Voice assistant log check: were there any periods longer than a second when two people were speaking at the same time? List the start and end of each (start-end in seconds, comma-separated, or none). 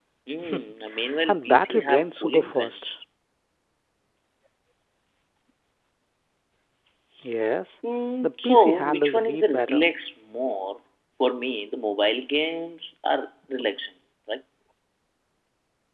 1.3-2.9, 8.2-9.9